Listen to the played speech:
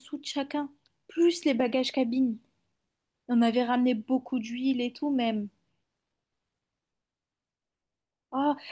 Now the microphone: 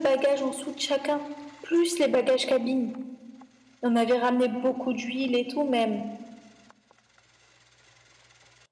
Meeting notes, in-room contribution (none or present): none